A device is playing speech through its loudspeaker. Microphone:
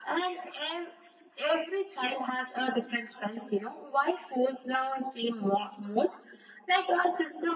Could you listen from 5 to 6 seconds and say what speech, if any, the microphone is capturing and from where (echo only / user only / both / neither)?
echo only